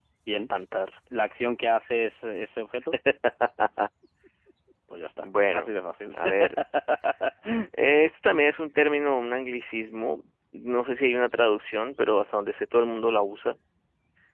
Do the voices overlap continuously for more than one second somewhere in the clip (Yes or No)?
No